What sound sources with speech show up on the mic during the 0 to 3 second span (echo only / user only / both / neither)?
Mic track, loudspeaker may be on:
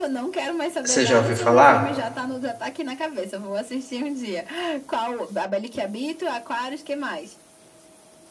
both